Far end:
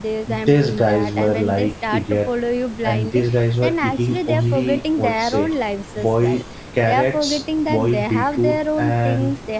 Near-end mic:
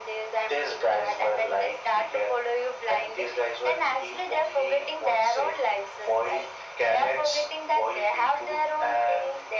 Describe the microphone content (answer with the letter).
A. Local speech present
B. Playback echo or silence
B